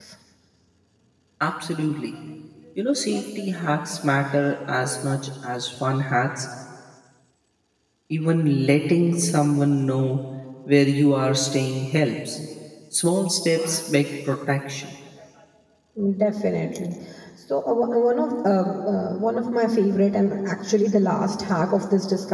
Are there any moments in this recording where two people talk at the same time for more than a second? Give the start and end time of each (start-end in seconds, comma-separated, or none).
none